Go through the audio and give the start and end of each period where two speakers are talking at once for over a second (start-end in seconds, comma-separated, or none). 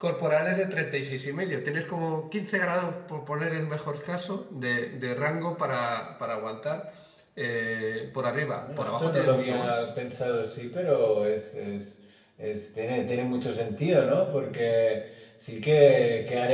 8.6-9.9